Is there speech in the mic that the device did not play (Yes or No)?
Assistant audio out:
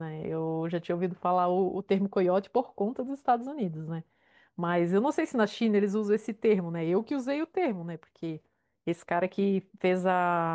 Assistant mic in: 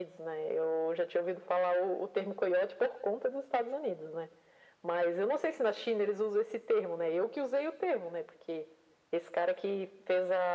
No